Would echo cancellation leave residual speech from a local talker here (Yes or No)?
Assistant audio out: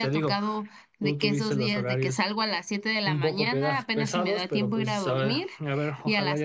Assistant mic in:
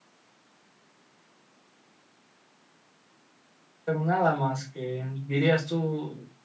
Yes